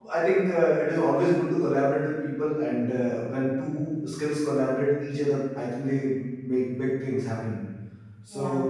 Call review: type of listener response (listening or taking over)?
listening